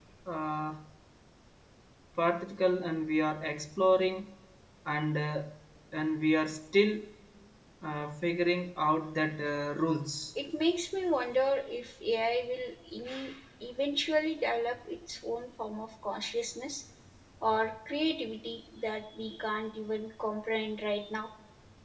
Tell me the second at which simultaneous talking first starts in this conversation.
none

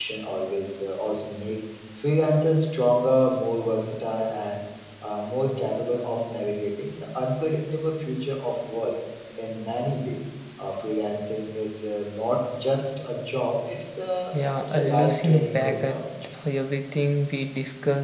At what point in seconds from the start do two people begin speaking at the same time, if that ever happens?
14.3 s

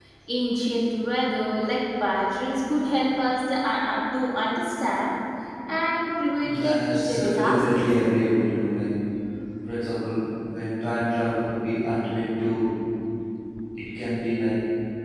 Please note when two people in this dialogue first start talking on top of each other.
6.4 s

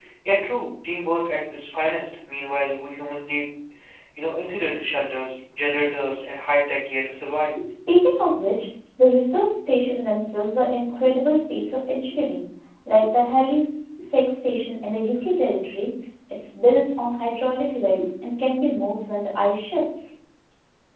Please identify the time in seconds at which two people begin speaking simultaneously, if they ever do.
none

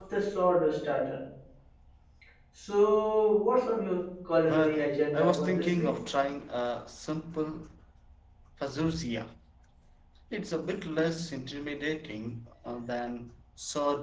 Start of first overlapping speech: 4.4 s

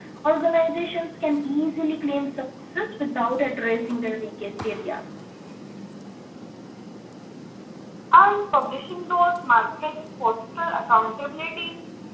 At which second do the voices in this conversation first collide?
none

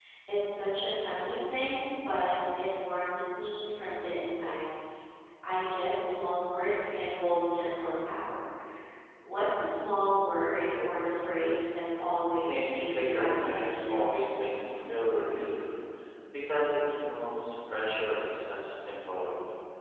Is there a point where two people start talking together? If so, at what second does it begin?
12.5 s

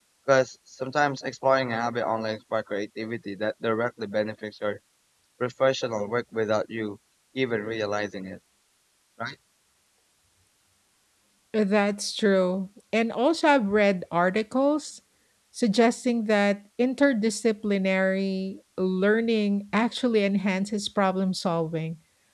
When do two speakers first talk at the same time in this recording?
none

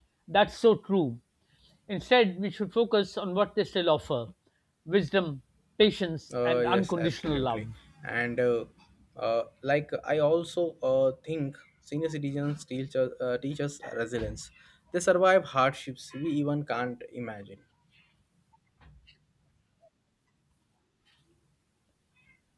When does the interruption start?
6.3 s

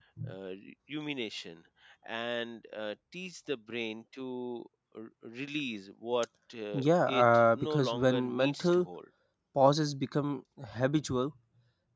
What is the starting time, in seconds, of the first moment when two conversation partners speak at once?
6.7 s

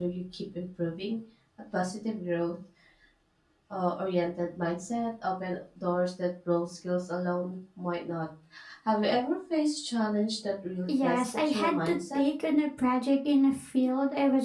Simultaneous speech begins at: 10.9 s

